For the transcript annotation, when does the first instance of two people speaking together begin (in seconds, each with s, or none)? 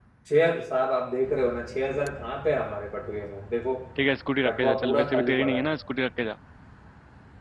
4.5 s